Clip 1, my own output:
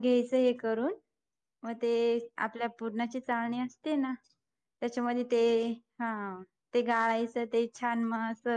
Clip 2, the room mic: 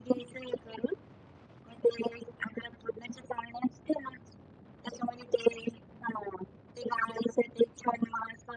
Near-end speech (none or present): none